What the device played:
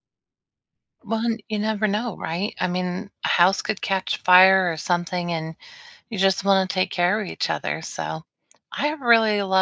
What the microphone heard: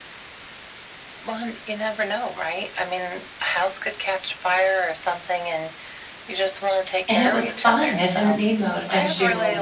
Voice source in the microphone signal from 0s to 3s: echo only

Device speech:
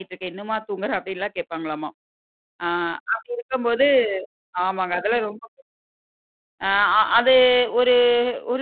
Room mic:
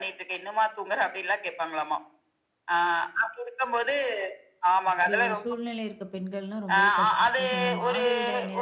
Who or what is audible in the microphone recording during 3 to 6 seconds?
both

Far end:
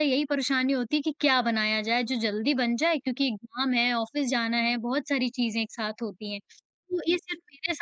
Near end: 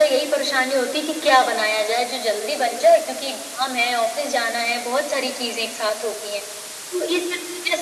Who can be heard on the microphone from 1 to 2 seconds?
echo only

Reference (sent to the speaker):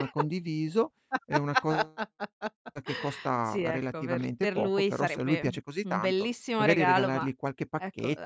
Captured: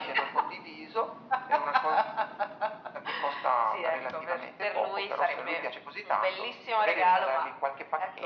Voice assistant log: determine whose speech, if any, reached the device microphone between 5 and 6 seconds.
echo only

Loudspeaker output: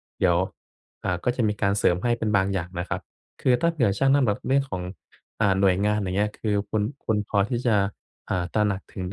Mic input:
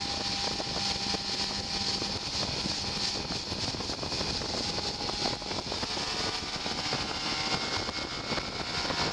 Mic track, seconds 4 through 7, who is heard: neither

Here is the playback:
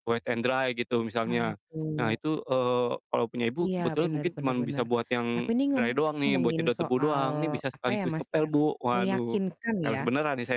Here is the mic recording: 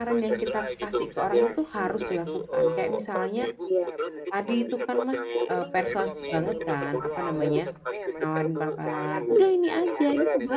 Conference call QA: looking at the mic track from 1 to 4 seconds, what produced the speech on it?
both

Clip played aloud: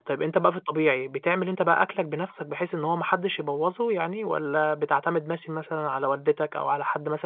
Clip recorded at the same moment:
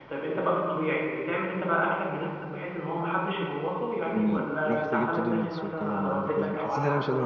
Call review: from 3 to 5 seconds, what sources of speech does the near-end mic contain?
both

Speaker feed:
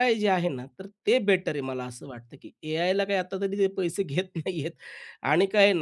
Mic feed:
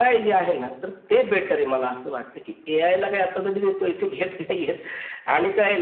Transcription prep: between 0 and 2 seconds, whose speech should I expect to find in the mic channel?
echo only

